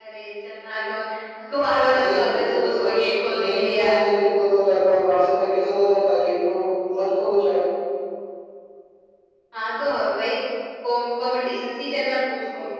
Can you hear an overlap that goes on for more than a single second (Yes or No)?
Yes